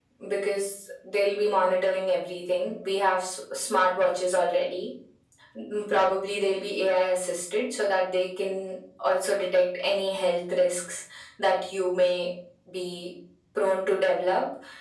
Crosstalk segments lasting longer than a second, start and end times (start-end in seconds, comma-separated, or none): none